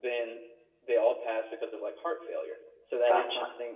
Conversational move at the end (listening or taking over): listening